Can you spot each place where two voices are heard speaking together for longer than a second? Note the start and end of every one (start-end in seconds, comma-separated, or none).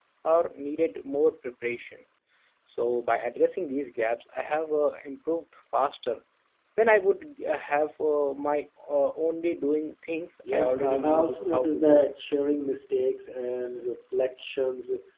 10.5-12.1